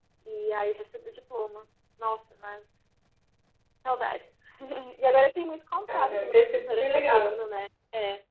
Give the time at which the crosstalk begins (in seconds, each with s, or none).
5.8 s